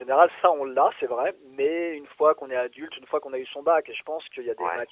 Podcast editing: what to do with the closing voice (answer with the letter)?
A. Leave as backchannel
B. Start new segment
A